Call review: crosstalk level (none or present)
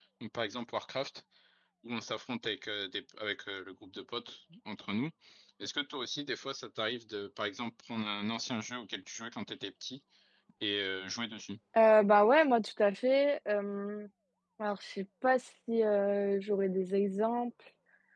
none